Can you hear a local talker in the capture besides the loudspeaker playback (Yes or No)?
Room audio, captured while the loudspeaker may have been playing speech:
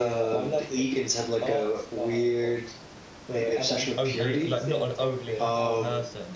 Yes